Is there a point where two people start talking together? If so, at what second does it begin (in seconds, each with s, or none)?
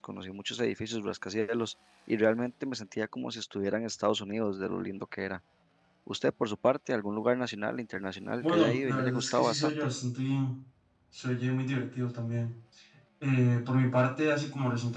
8.4 s